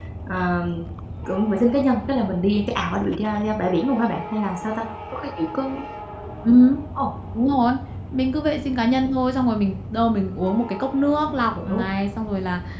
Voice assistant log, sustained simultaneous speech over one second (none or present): none